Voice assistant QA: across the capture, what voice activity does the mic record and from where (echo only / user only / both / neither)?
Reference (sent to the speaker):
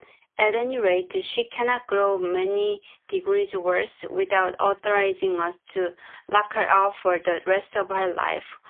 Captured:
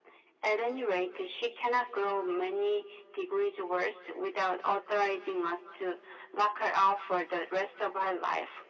echo only